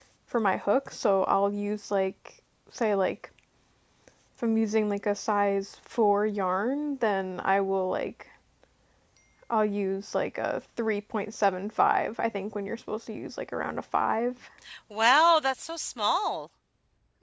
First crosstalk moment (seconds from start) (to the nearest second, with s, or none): none